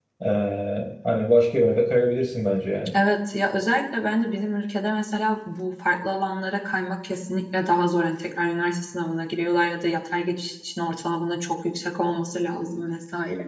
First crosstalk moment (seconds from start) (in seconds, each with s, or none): none